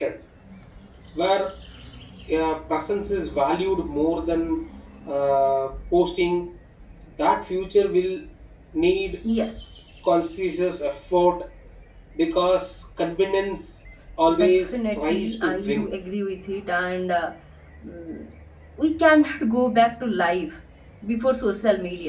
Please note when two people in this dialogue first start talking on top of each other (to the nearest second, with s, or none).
14 s